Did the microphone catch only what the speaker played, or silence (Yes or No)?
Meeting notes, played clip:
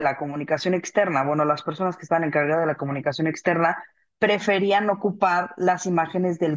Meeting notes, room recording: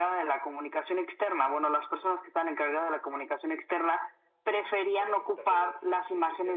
No